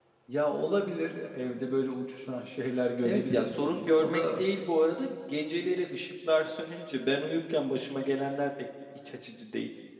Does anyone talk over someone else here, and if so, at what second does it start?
3.0 s

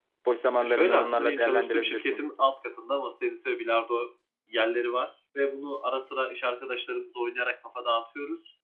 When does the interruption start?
0.6 s

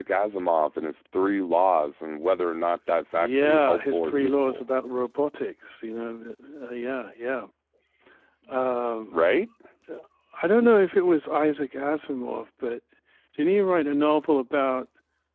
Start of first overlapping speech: 3.2 s

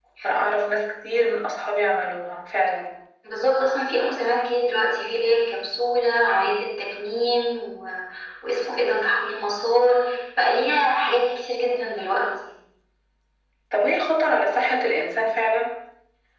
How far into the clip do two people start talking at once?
none

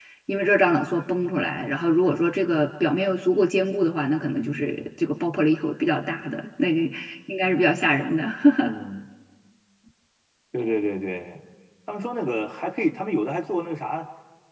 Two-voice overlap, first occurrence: none

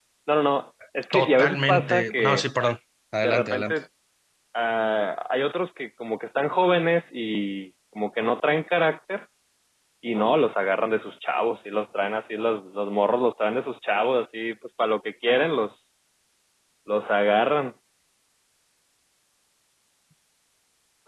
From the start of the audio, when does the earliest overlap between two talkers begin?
1.1 s

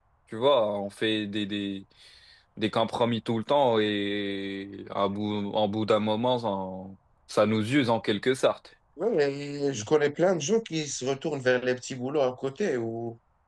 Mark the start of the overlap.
none

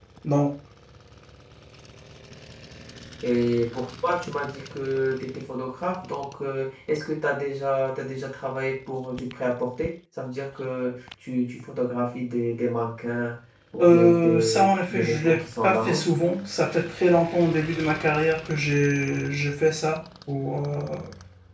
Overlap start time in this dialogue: 13.8 s

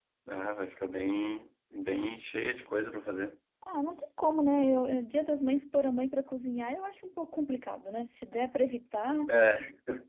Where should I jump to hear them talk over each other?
none

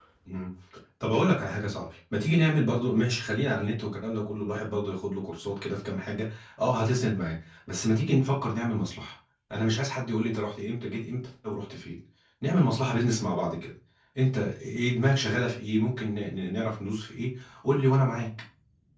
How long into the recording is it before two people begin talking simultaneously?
none

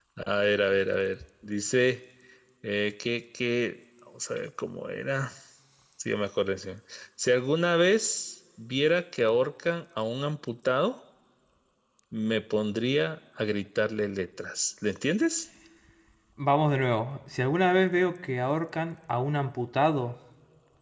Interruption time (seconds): none

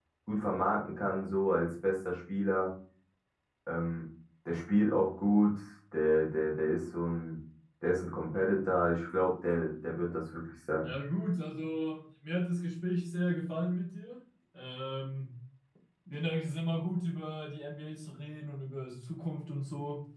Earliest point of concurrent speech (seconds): none

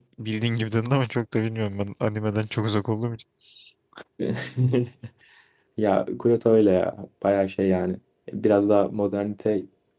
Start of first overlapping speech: none

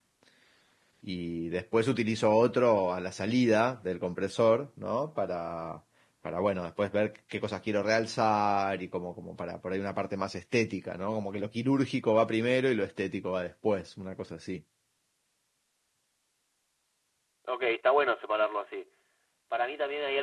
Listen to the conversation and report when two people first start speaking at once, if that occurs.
none

